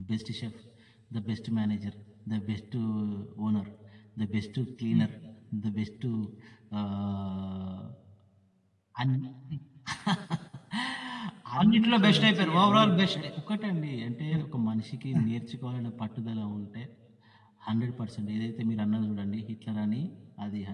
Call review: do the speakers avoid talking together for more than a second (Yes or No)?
No